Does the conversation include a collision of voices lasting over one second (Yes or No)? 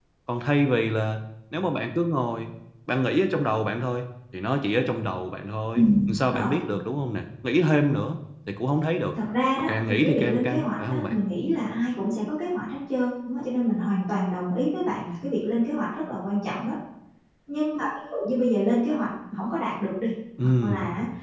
Yes